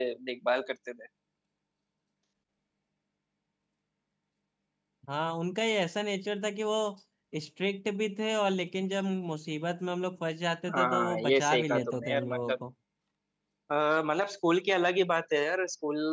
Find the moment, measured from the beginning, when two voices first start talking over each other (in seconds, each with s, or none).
10.7 s